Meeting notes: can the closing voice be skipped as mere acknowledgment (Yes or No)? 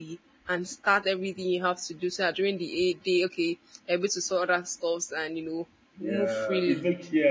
No